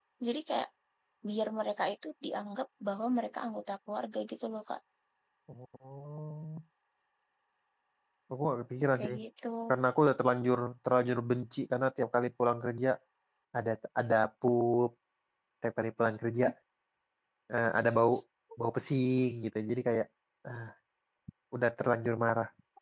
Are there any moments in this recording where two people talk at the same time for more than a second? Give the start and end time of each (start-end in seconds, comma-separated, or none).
none